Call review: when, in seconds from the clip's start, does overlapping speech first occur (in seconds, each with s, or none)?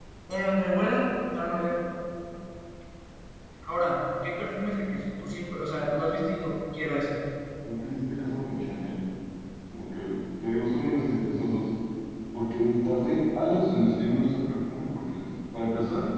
none